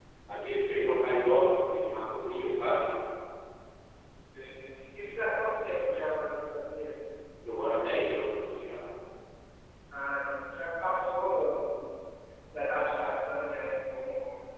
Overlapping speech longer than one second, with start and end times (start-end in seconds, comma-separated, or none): none